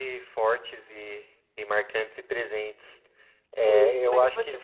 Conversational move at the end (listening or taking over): taking over